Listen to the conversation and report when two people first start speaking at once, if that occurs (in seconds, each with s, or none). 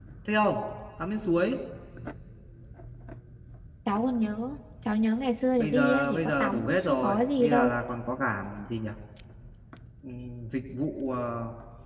5.6 s